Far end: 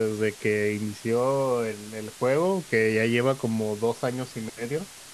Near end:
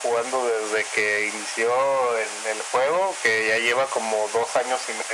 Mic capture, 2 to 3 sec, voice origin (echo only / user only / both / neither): echo only